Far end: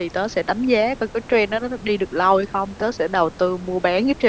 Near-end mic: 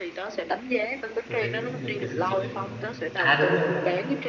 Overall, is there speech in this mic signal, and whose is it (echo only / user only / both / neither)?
both